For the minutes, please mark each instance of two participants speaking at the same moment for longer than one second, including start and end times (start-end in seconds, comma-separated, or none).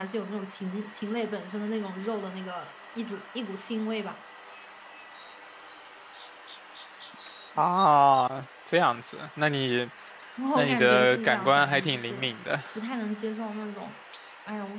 10.6-12.3